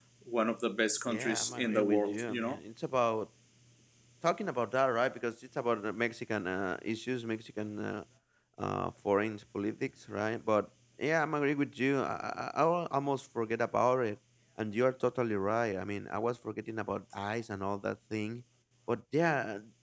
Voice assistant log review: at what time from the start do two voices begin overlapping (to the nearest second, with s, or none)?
1 s